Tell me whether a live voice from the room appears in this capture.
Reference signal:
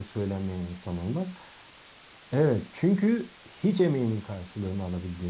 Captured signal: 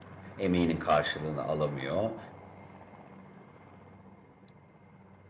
Yes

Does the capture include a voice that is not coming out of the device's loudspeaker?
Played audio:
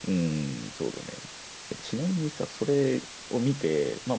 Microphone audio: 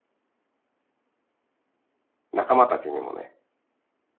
Yes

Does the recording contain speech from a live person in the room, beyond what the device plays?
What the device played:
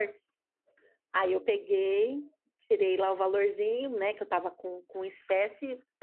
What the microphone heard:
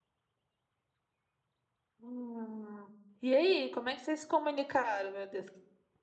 Yes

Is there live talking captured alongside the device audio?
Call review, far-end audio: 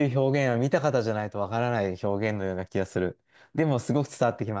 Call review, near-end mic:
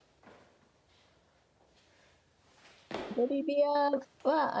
Yes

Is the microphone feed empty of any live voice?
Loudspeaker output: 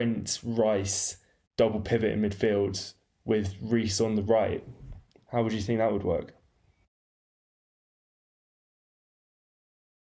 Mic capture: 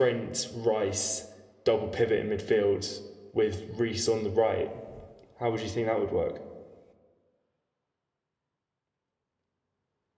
Yes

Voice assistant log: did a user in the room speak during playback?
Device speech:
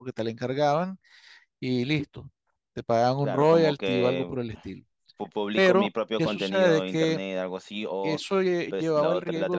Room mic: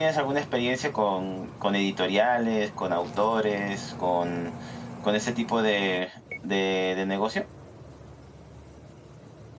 Yes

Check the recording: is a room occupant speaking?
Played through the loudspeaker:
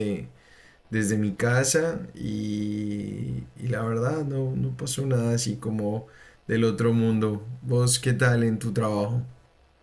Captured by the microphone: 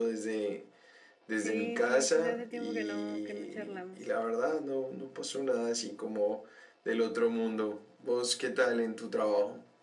Yes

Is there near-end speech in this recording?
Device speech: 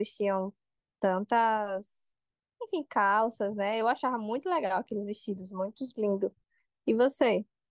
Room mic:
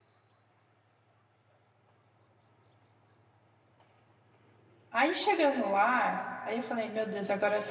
Yes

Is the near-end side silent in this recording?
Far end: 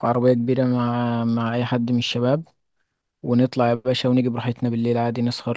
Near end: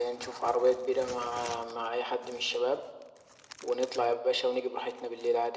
Yes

